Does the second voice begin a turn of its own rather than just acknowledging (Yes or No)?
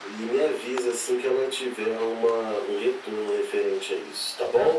Yes